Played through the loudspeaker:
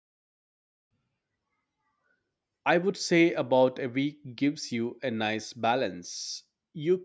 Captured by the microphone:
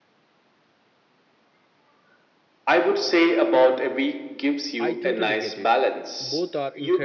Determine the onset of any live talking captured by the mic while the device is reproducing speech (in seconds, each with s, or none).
4.8 s